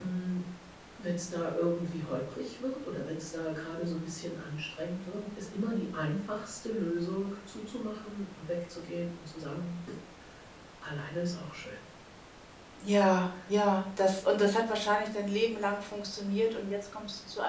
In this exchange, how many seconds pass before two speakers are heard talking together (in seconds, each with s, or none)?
none